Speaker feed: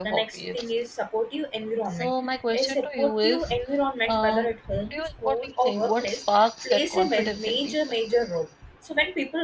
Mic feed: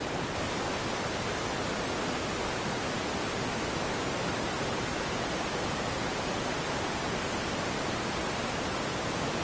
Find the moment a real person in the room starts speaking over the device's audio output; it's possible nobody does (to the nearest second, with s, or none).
none